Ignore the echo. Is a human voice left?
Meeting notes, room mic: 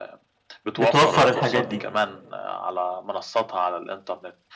Yes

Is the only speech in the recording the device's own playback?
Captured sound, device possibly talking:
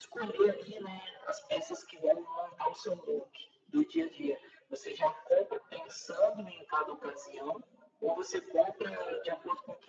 Yes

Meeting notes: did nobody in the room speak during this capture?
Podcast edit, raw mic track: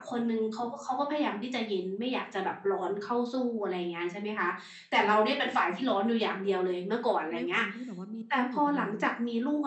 No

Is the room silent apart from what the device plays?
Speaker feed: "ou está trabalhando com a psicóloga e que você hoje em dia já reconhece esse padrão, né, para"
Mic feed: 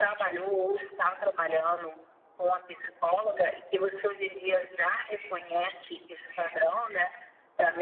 Yes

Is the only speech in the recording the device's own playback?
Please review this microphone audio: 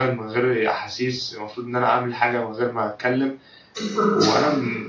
No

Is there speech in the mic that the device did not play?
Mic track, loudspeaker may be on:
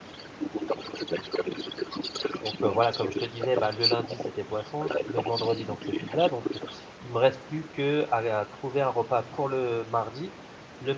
Yes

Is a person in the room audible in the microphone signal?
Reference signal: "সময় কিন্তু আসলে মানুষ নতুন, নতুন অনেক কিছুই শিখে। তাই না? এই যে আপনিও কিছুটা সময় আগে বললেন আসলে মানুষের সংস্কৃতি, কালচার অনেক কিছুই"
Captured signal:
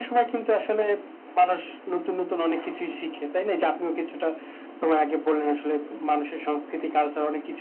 No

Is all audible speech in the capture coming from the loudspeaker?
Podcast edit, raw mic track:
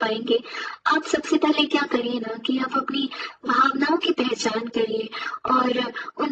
Yes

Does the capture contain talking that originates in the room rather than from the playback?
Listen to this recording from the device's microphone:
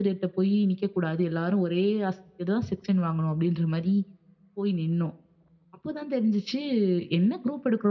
Yes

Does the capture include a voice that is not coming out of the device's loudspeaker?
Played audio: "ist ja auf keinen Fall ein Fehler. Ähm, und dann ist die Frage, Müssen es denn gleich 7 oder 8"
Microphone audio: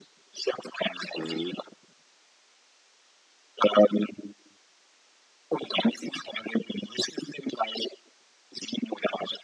Yes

